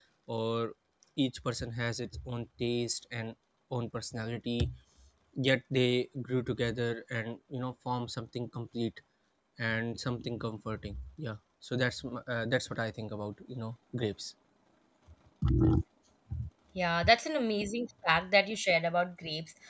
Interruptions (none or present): none